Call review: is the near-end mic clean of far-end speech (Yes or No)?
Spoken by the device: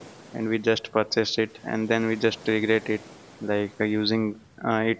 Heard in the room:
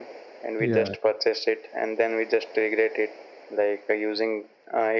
No